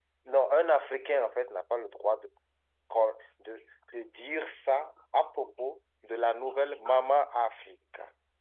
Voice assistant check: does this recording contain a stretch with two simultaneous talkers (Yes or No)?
No